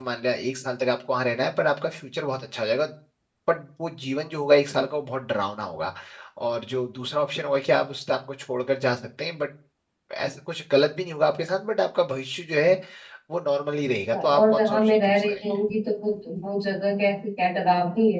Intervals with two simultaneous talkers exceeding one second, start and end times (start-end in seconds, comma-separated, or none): 14.1-15.4